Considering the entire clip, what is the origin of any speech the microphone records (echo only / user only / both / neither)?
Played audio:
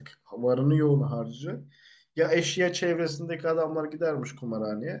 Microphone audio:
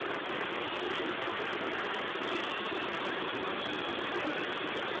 neither